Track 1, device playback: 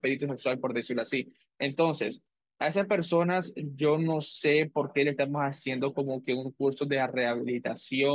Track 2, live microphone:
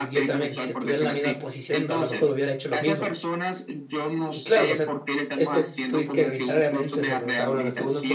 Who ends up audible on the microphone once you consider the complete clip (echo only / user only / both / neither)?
both